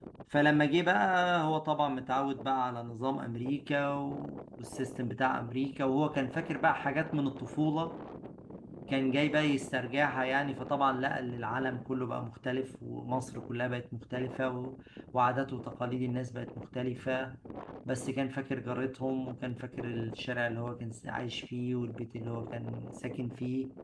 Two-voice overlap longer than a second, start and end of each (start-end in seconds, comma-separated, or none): none